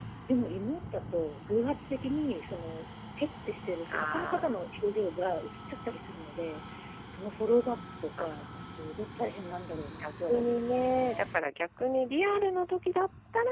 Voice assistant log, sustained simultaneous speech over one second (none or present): present